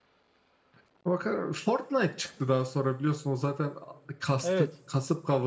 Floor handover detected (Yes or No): No